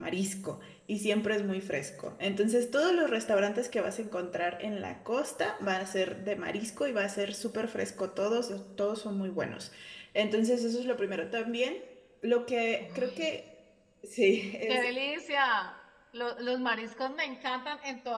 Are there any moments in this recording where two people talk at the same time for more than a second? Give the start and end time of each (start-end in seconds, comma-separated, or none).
none